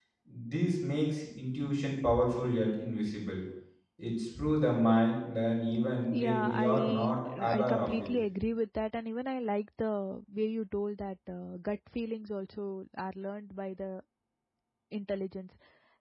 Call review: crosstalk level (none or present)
present